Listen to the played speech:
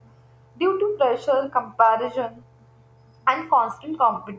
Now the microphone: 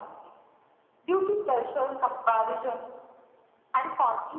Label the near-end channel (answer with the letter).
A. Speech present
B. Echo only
B